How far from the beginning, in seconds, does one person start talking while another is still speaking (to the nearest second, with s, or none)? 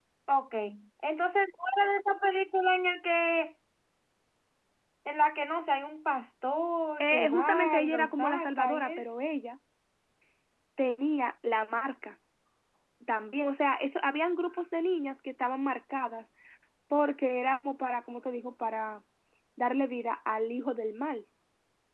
7 s